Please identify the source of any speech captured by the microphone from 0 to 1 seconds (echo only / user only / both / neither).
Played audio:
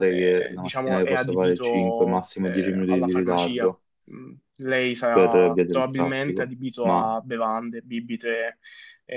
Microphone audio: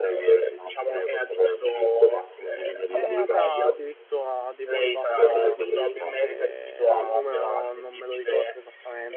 echo only